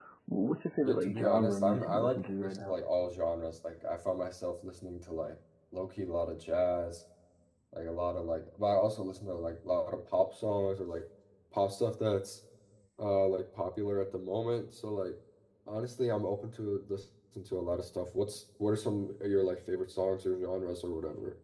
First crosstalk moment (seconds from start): 0.8 s

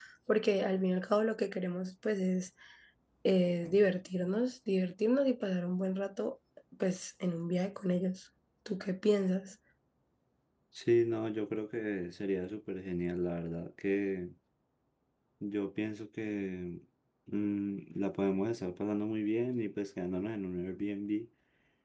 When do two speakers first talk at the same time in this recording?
none

